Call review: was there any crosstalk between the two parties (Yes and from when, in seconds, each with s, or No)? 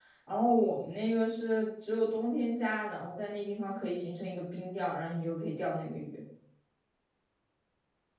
No